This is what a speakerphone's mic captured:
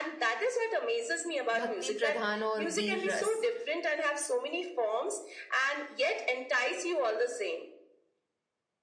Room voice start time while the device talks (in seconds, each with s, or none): 1.5 s